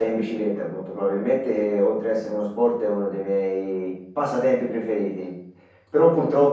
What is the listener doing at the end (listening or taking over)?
listening